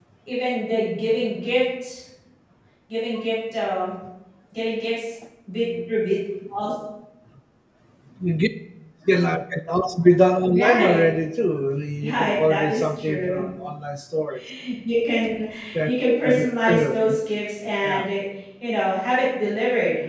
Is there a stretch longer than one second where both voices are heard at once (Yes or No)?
Yes